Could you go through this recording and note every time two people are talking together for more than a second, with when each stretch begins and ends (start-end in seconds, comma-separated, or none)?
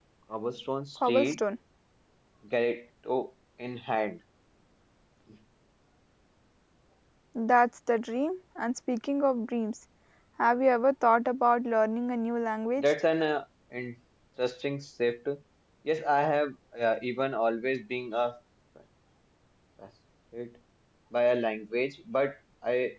none